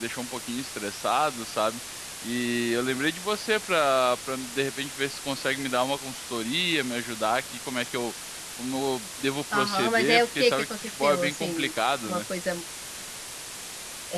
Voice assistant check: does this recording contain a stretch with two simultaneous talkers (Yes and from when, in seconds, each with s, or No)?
Yes, from 9.5 s